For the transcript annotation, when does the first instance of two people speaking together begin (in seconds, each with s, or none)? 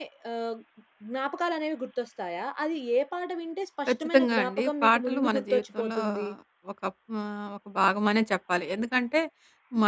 3.9 s